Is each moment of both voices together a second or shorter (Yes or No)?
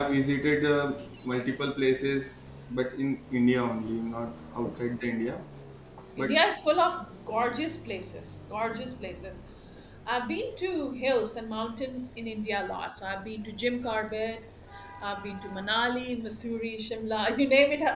Yes